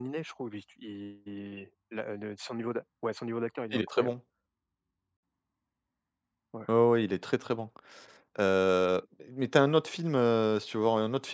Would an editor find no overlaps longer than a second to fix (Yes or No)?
Yes